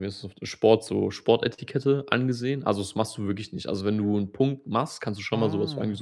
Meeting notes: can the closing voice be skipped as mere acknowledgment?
Yes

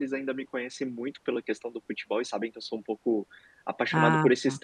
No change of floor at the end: Yes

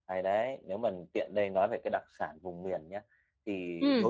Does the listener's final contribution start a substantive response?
No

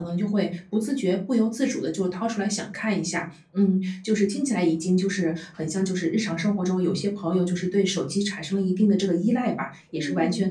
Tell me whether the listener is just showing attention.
Yes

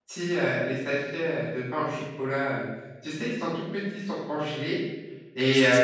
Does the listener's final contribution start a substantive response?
No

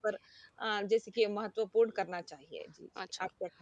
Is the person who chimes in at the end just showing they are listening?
No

